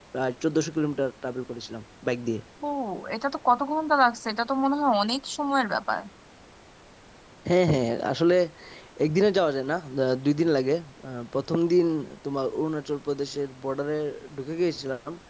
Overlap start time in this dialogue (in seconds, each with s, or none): none